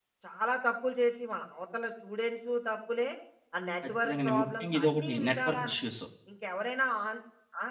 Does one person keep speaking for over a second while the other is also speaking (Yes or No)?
Yes